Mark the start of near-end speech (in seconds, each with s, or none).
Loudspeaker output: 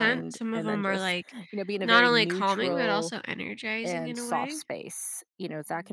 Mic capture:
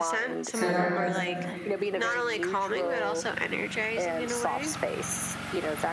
0.5 s